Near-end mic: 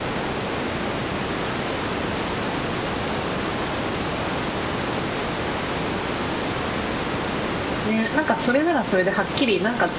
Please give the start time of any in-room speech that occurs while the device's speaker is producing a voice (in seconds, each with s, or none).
7.8 s